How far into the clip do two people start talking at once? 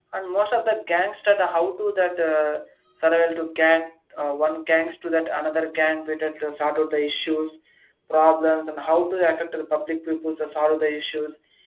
none

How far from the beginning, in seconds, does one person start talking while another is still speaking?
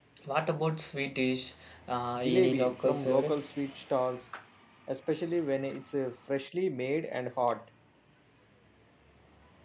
2 s

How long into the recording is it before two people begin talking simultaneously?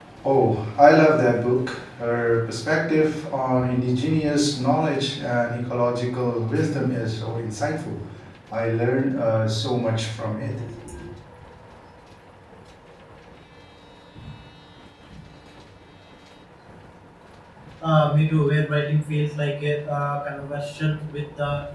none

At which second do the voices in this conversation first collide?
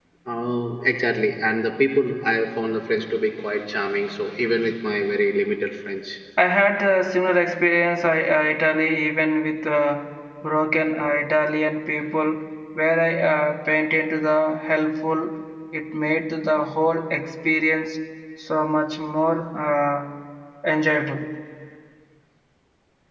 none

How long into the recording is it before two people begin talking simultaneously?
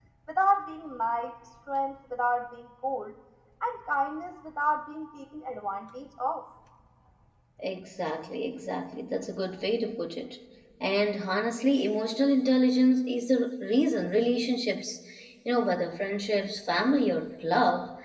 none

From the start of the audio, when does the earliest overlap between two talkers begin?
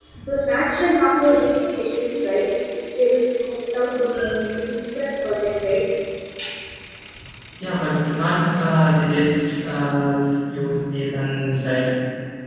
none

